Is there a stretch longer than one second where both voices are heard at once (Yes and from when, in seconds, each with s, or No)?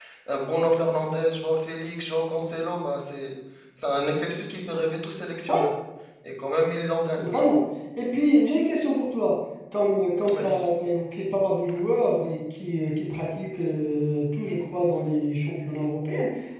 No